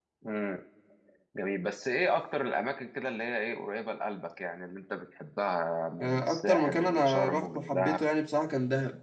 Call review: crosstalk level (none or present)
present